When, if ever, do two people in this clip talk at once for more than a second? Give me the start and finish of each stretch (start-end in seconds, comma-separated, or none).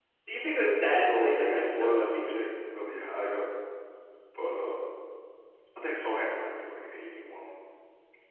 0.9-2.3